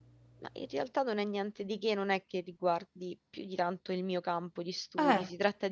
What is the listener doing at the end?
listening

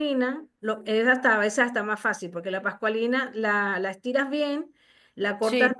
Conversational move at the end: listening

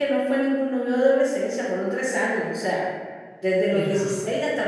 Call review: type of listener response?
listening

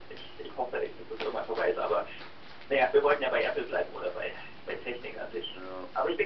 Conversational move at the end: listening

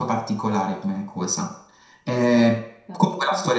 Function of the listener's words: listening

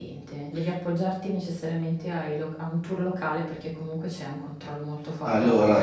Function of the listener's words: taking over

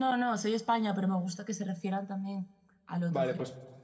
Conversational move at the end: taking over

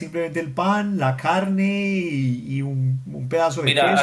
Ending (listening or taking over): taking over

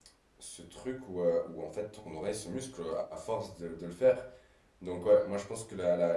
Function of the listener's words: listening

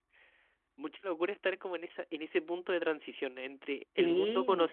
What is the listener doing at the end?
listening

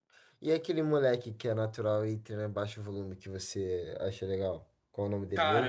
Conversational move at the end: taking over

